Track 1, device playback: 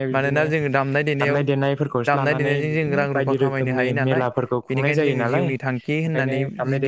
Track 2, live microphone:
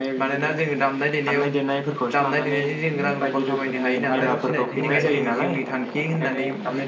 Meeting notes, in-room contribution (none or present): present